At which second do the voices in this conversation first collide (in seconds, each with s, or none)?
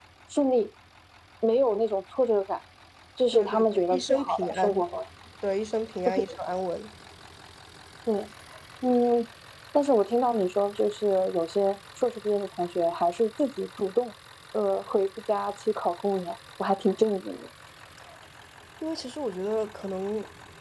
3.3 s